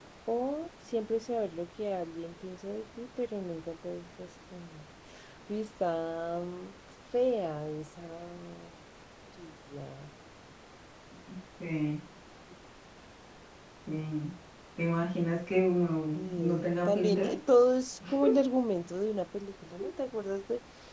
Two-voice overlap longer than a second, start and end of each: 16.1-17.3

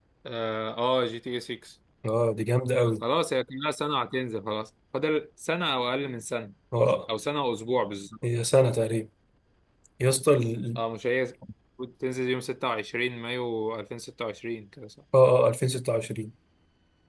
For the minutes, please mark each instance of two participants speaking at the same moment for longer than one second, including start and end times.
none

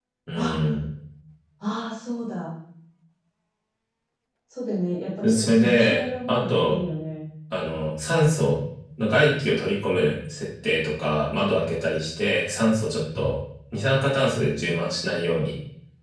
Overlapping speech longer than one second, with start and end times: 5.2-6.8

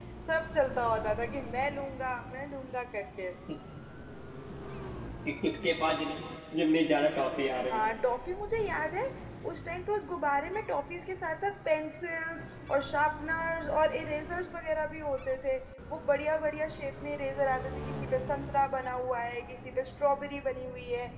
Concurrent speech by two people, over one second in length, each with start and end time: none

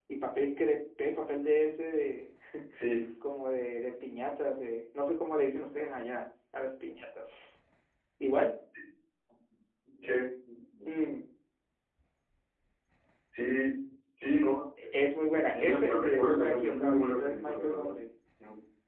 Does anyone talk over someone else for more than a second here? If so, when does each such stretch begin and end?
15.5-18.0

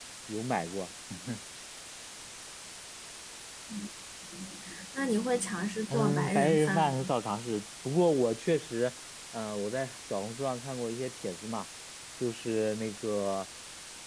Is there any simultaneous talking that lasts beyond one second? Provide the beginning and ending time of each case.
5.9-7.1

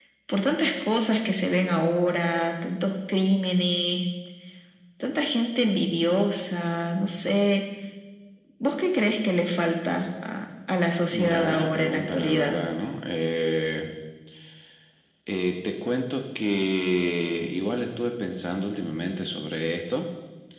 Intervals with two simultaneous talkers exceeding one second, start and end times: 11.1-12.6

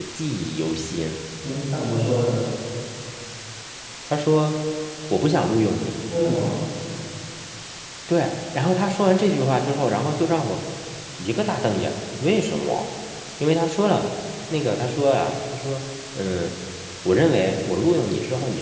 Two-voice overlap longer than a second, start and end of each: none

